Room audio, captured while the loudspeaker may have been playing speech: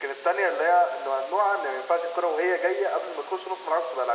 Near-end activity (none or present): none